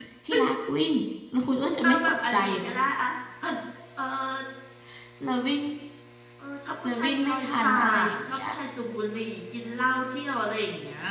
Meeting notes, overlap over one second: present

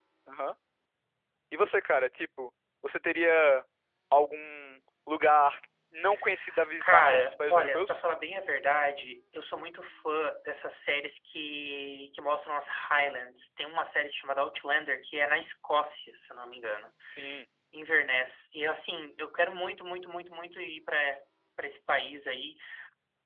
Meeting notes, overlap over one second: present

